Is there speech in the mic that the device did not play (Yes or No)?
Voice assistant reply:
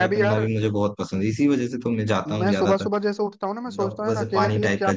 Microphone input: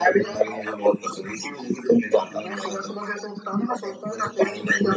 No